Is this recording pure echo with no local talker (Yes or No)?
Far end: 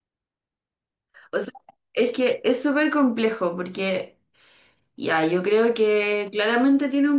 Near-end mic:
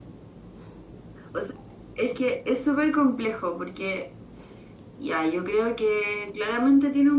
Yes